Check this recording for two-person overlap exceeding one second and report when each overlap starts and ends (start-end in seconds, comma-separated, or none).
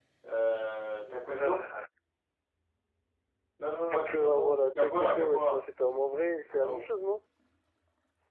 3.9-5.6